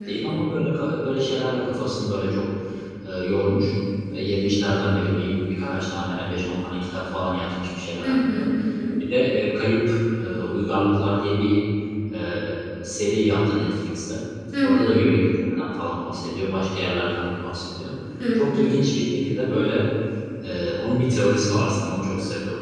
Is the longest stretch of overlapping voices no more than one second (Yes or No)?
Yes